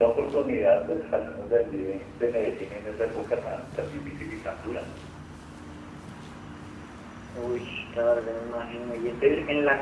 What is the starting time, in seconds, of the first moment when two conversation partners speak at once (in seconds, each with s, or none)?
none